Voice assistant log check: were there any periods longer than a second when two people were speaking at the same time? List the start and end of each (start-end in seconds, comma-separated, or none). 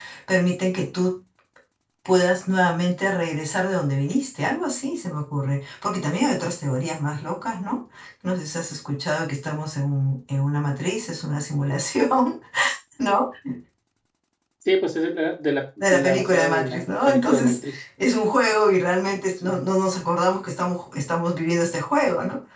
15.8-17.8